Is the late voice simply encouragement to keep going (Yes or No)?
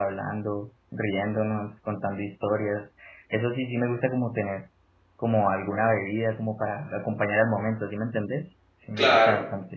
No